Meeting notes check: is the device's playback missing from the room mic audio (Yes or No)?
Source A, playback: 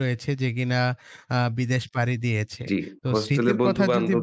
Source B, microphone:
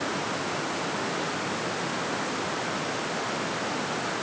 Yes